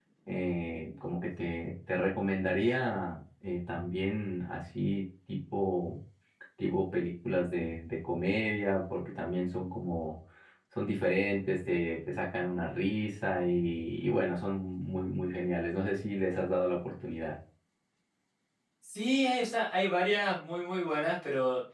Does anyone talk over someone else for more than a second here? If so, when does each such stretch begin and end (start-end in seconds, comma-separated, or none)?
none